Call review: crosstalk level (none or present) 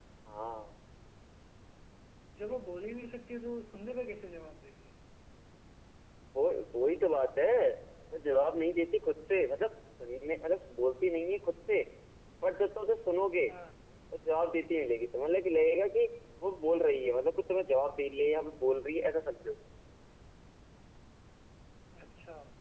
none